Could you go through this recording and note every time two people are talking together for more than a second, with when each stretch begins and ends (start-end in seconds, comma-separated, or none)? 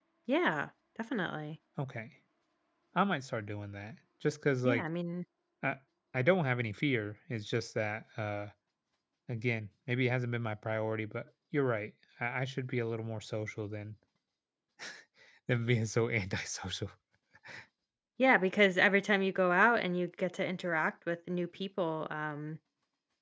none